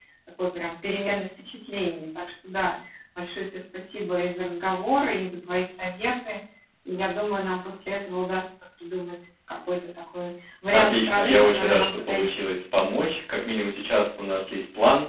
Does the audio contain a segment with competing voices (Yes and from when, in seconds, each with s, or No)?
Yes, from 10.7 s